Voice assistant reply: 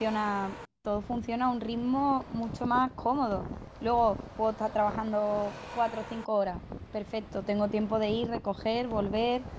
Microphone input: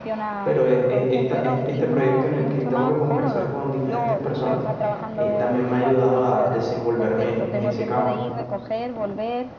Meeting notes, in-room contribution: present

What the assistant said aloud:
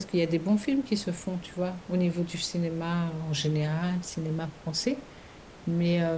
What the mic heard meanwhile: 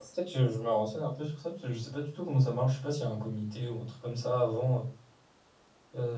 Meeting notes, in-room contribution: present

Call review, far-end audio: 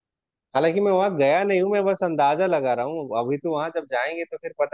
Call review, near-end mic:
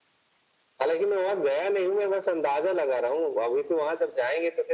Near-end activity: none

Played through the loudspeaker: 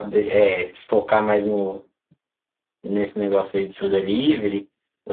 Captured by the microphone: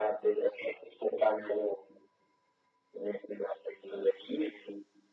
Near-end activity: none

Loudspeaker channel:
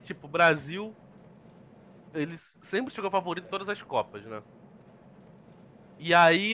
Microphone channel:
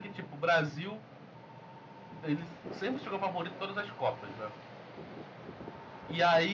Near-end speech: none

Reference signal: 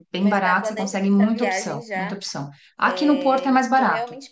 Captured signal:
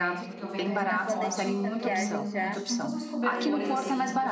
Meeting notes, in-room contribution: present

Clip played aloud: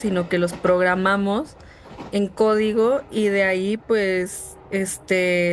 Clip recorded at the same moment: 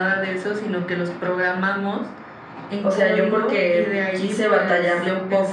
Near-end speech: present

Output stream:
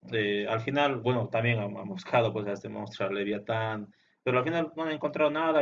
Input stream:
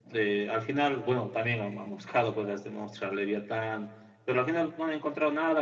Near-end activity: none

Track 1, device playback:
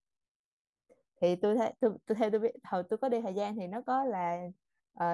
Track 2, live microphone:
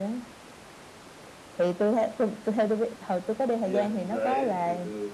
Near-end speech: present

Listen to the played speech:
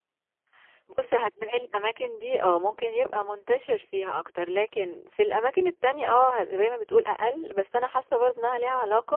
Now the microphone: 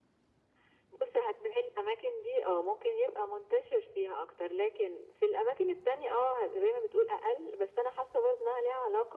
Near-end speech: none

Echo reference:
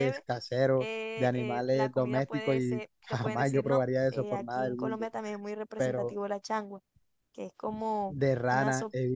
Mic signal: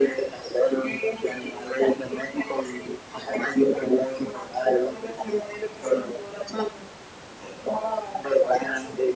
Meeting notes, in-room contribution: none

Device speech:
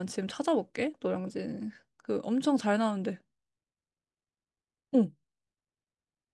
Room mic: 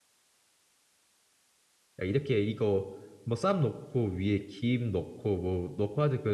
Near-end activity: present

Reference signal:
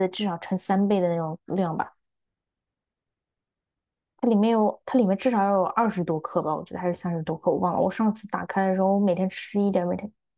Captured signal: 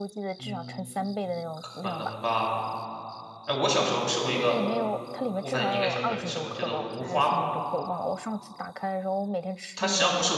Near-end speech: present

